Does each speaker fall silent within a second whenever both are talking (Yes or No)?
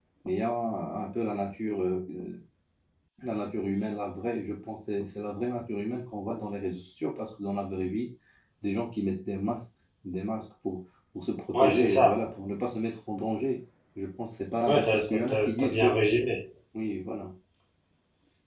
No